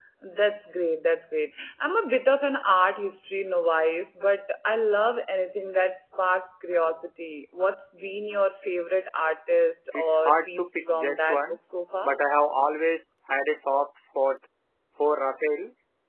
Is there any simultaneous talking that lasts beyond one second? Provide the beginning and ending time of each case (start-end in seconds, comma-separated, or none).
9.9-11.4